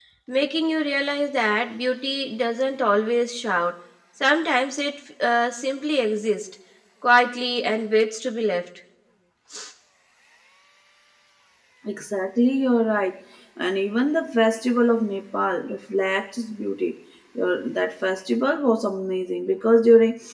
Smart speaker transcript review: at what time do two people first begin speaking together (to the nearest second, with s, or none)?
none